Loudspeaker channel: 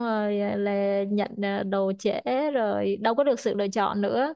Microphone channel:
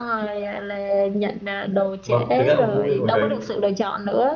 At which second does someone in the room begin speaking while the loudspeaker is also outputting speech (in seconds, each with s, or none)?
2.0 s